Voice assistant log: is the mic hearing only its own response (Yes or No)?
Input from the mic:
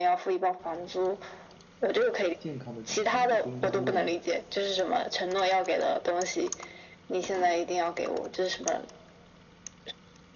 No